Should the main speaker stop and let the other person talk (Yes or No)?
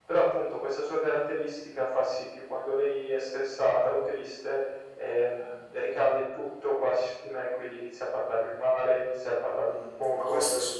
Yes